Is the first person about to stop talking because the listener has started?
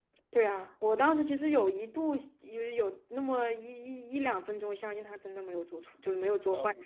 Yes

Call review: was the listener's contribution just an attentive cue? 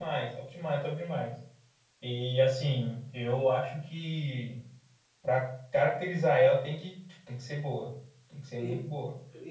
No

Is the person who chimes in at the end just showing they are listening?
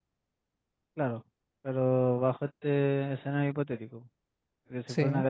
Yes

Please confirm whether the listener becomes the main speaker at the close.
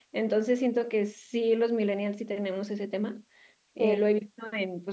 No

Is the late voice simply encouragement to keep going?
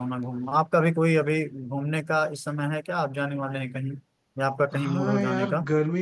No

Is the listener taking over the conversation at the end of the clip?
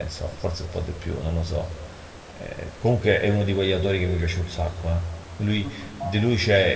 No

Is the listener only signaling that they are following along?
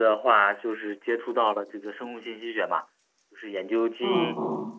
No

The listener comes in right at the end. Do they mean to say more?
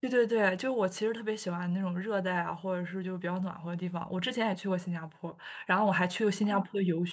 No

